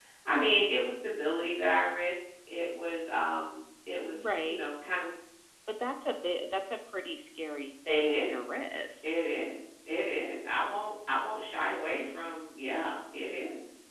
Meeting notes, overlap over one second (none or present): present